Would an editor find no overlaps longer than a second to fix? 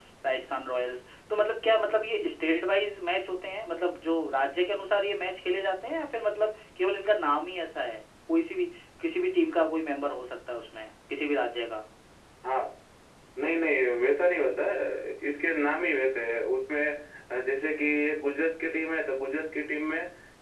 Yes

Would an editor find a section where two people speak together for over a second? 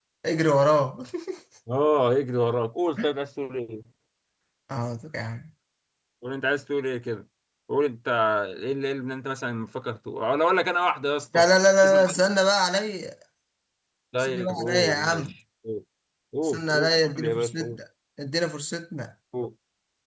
Yes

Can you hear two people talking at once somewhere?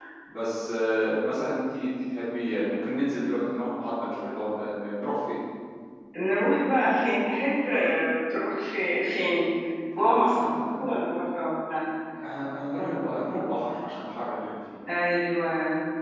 No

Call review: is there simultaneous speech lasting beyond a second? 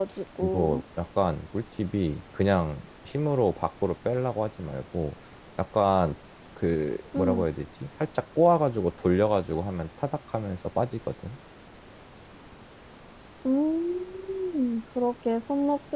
No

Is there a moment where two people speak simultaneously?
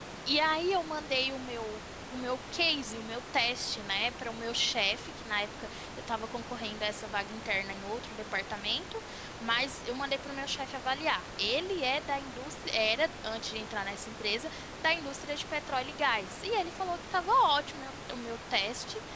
No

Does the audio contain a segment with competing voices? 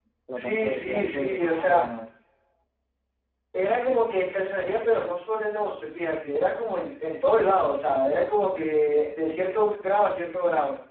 Yes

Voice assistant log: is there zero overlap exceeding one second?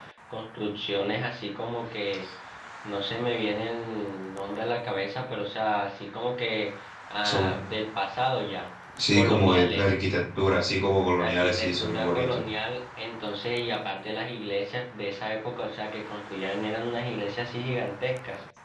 No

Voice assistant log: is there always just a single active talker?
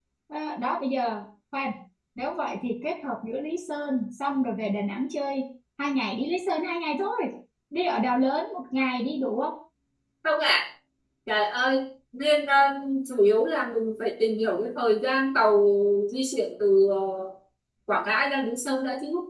Yes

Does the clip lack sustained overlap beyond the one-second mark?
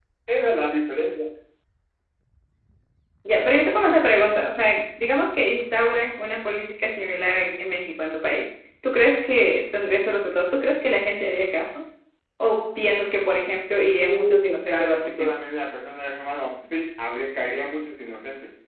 No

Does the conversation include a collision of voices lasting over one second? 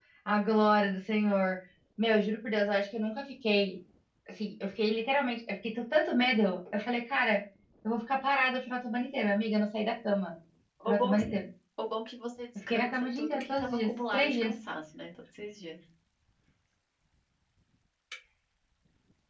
Yes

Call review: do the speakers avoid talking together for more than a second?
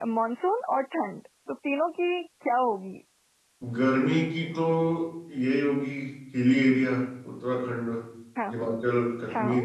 Yes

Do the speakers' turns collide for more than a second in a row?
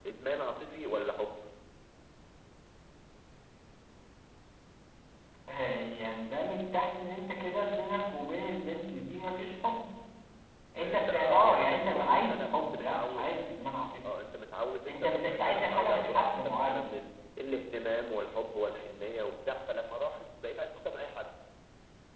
Yes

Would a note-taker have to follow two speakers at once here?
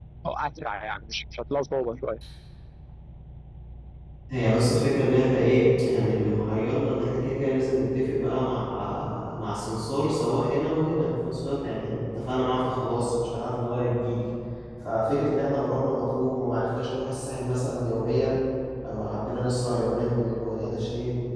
No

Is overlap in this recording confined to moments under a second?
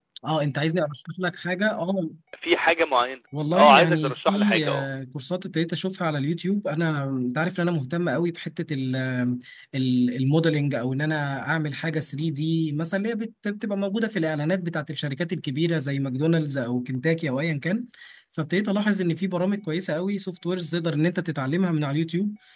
No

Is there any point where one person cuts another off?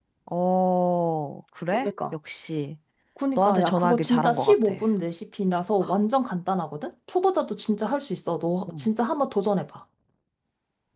Yes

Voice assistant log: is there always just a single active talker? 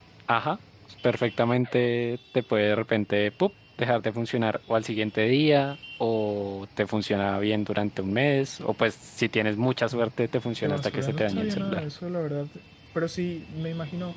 No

